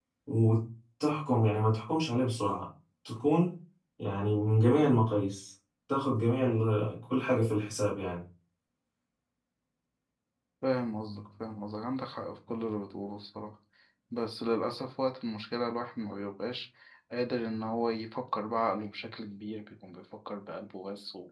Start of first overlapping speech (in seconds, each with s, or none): none